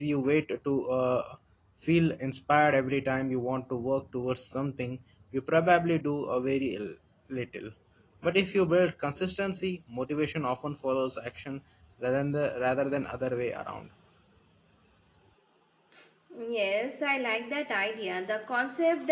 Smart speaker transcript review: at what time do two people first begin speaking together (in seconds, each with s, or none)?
none